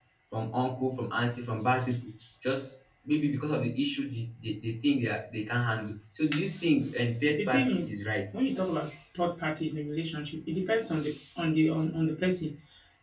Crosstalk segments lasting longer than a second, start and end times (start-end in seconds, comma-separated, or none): none